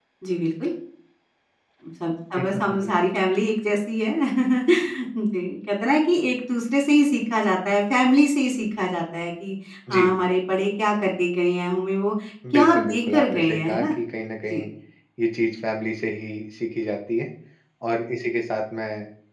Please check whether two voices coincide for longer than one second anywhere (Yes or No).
Yes